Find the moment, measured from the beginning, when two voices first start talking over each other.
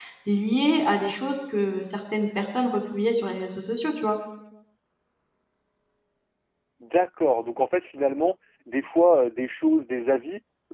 none

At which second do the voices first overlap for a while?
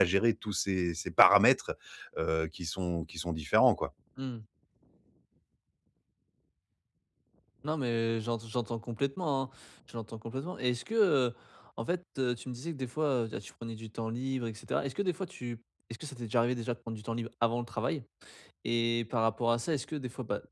none

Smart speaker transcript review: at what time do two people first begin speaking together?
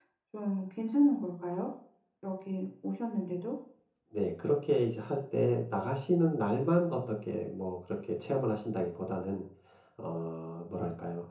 none

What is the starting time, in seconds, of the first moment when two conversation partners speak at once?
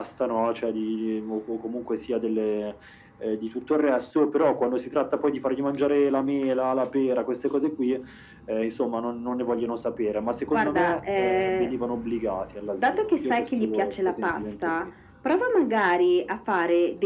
10.5 s

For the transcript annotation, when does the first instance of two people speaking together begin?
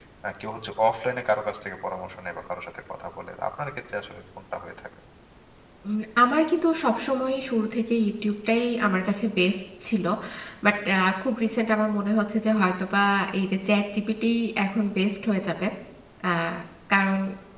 none

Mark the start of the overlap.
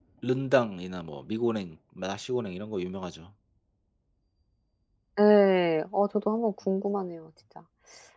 none

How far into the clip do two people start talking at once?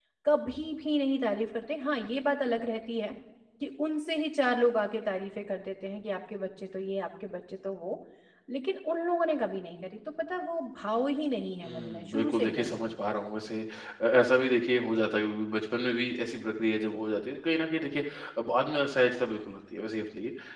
11.6 s

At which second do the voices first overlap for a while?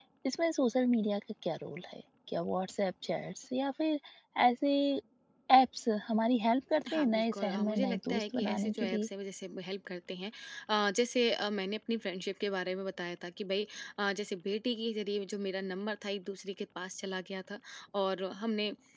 6.8 s

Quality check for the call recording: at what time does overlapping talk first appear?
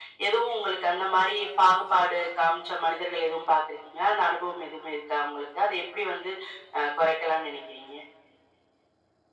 none

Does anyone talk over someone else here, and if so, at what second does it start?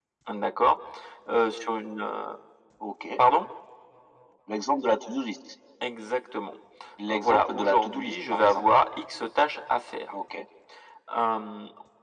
7.1 s

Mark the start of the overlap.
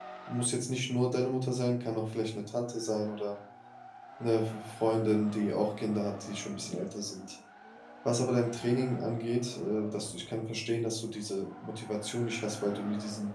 none

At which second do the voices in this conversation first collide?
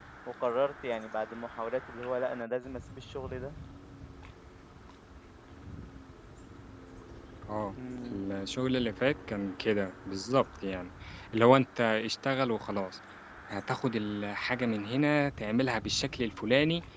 none

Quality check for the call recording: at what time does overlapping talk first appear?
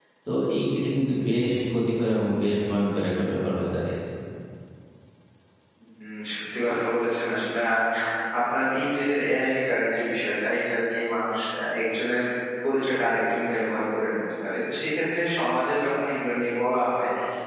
none

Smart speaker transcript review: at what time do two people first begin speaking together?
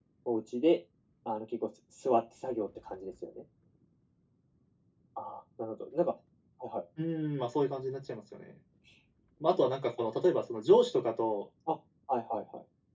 none

